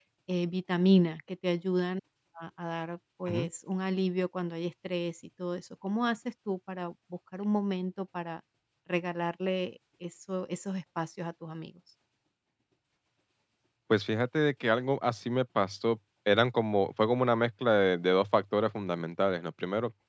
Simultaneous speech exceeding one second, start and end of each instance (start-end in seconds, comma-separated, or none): none